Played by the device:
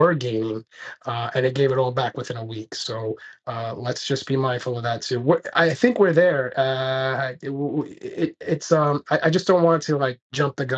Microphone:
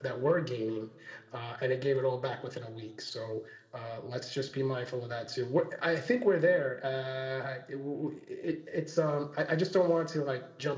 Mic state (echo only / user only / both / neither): echo only